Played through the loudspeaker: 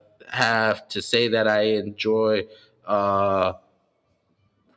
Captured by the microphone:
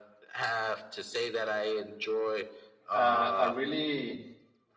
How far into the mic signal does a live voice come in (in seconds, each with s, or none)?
2.9 s